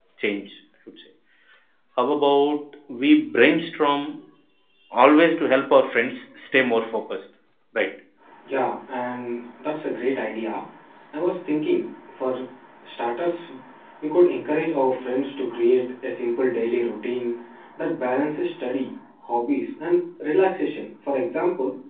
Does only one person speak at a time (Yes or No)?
Yes